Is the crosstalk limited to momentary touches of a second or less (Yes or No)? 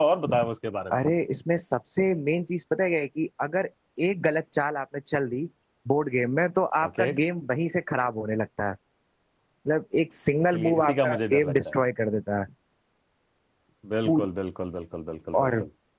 No